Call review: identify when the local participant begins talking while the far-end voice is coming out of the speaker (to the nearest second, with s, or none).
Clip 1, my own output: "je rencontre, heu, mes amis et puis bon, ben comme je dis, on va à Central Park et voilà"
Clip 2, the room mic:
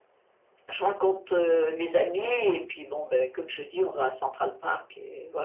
none